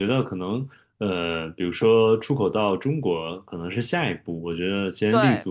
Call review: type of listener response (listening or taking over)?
listening